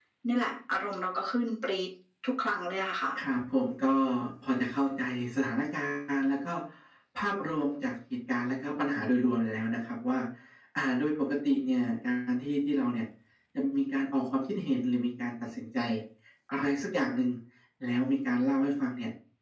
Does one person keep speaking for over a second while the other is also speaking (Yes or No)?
No